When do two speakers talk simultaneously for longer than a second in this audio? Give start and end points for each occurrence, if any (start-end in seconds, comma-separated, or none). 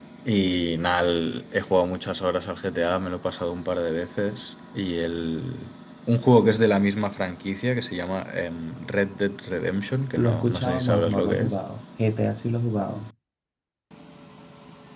10.2-11.6